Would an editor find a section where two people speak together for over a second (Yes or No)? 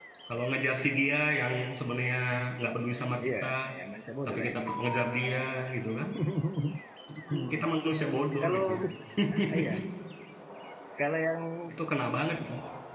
No